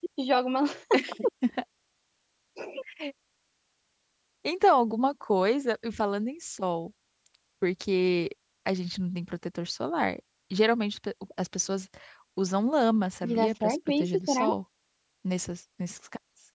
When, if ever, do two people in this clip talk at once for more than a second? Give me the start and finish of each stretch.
13.2-14.4

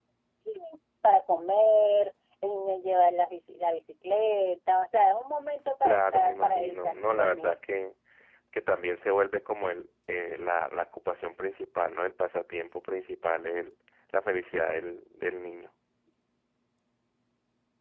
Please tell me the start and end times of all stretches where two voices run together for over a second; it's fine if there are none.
5.8-7.5

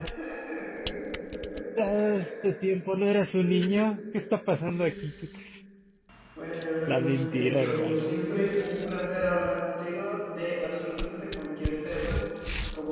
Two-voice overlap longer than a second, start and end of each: 6.9-8.2

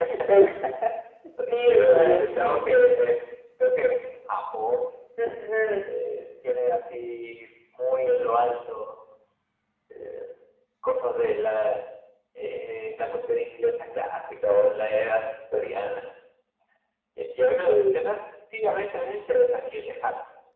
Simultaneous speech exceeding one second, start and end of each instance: 1.5-2.7

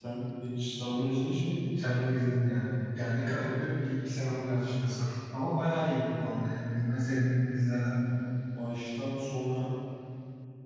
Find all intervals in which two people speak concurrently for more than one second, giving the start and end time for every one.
none

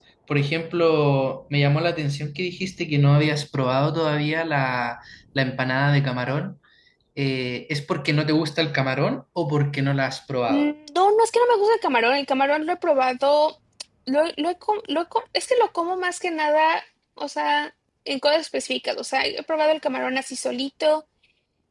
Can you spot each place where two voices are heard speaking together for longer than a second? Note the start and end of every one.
none

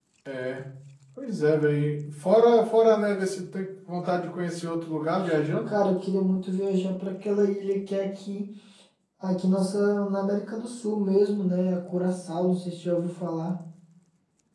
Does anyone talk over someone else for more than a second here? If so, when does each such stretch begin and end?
none

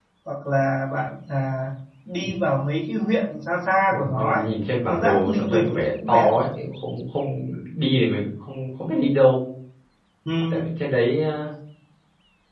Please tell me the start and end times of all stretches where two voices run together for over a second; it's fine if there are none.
4.8-6.3

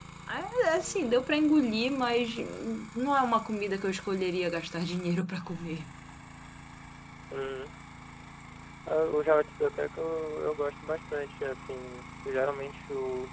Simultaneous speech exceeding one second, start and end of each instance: none

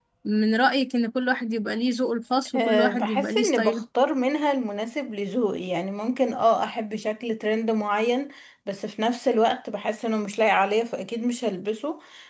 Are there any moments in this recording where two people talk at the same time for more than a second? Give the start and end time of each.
2.6-3.8

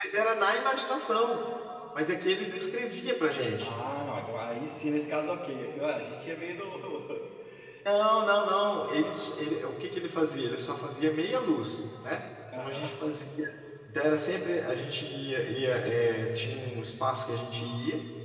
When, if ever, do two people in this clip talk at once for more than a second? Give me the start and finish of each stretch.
none

